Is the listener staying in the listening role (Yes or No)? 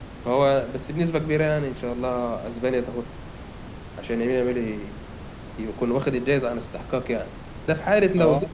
Yes